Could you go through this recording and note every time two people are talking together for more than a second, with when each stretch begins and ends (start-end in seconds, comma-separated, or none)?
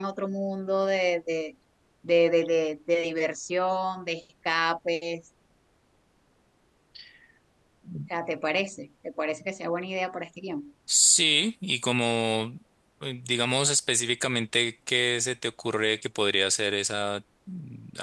none